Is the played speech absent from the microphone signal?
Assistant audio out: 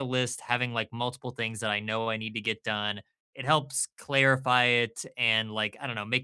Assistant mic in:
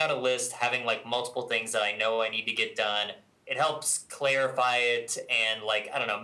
No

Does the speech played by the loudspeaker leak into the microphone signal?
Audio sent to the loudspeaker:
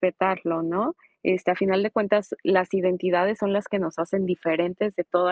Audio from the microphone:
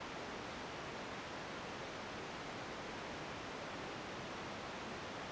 No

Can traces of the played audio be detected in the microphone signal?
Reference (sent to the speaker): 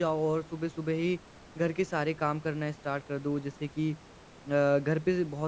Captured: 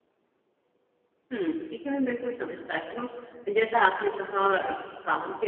No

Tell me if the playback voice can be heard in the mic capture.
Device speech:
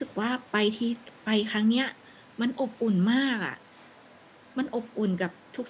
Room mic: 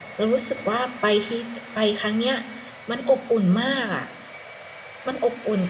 Yes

